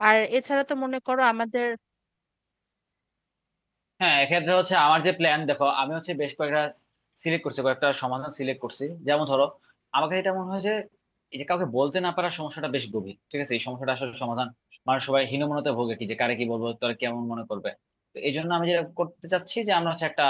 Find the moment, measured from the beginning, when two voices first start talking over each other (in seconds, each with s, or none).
none